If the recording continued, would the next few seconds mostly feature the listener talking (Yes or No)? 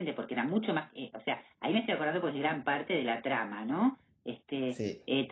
No